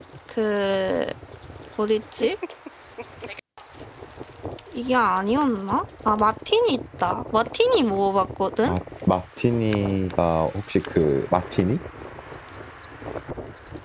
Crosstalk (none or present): none